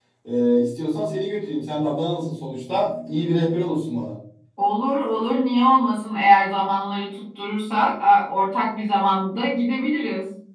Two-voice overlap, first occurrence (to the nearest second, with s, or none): none